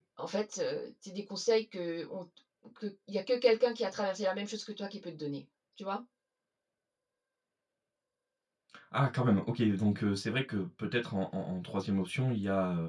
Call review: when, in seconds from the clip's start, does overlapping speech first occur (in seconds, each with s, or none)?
none